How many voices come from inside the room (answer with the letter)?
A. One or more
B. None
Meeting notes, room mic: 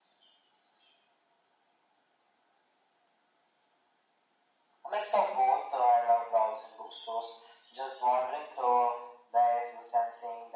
B